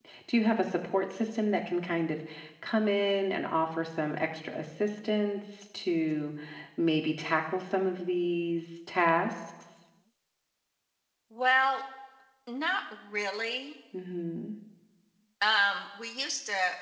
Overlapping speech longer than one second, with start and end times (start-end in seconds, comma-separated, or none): none